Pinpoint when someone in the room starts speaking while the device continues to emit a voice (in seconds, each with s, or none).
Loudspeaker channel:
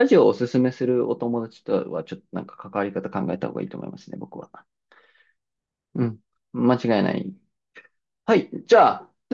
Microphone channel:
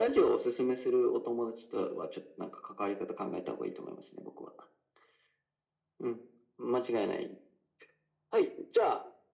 none